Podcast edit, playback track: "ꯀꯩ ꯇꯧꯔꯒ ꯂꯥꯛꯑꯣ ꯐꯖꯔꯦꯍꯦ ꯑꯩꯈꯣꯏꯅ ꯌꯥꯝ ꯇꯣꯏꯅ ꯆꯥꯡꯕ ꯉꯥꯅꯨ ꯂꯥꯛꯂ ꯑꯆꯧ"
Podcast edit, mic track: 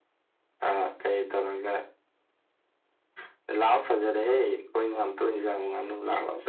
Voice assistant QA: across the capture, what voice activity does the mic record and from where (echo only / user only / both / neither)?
echo only